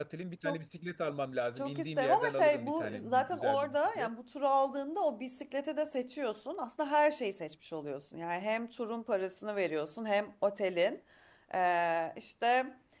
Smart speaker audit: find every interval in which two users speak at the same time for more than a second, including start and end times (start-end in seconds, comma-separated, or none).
1.6-4.1